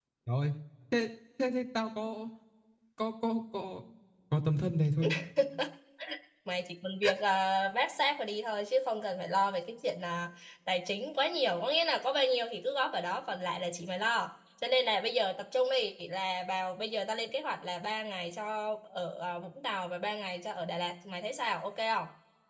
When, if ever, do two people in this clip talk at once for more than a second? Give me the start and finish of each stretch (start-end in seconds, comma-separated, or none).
none